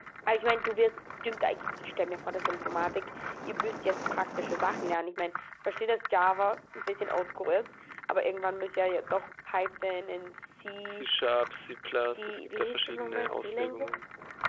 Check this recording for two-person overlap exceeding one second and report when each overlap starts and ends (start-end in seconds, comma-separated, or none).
11.9-13.9